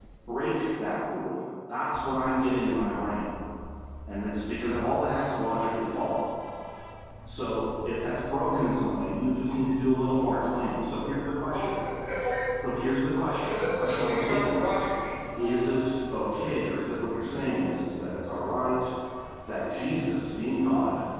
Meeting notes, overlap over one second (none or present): present